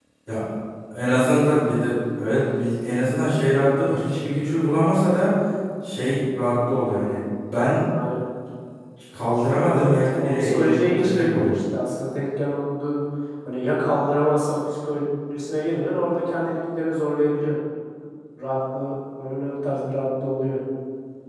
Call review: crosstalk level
present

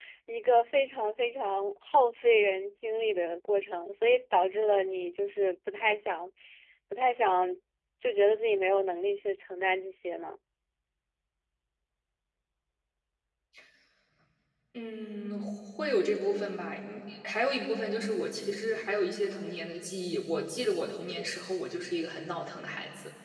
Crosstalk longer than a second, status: none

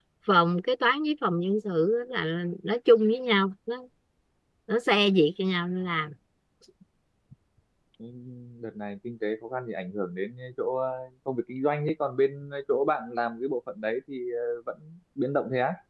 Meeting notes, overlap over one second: none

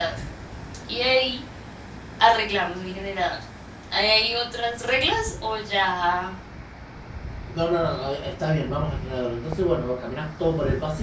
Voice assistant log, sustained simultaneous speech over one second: none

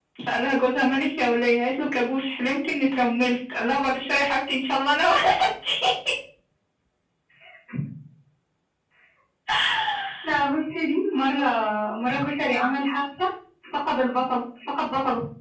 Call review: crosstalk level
none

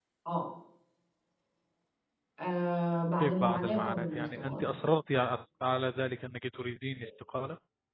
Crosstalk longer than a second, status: present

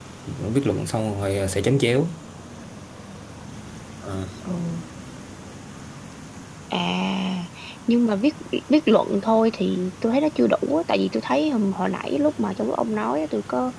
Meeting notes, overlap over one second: none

